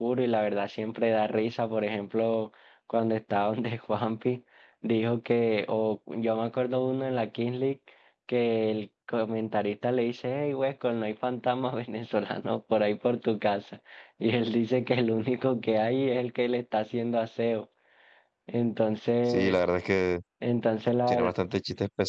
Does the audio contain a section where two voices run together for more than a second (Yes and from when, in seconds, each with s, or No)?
No